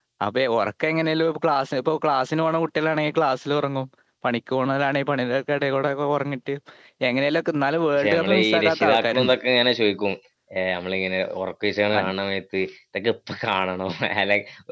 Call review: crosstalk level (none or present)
present